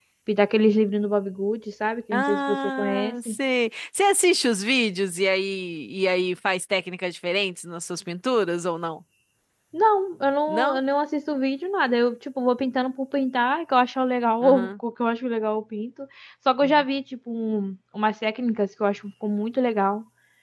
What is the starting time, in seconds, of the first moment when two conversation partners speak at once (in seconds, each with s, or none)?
2.1 s